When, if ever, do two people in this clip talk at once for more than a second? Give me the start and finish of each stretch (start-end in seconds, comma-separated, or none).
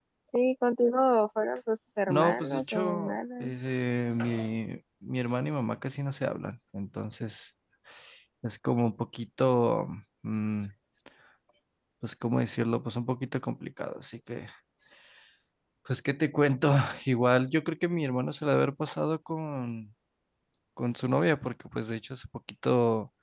2.1-3.5